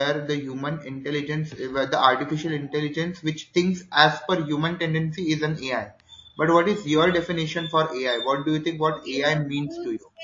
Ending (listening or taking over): taking over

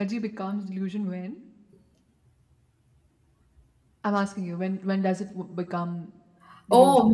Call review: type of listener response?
taking over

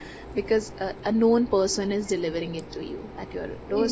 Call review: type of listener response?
taking over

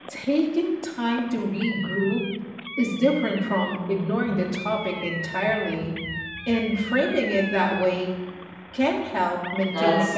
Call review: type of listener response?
taking over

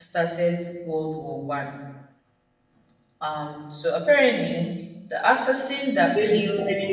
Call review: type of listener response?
taking over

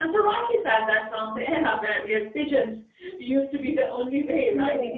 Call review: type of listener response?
listening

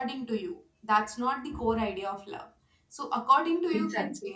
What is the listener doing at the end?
listening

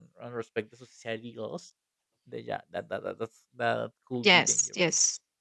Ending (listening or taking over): taking over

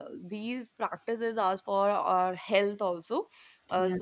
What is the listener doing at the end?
listening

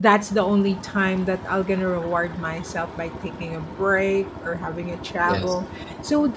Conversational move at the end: listening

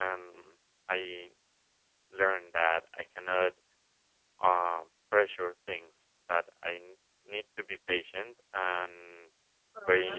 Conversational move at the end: listening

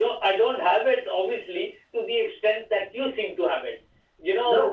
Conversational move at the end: taking over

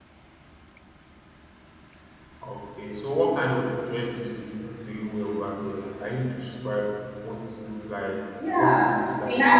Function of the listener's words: taking over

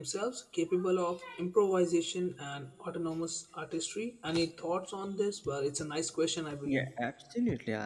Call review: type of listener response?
taking over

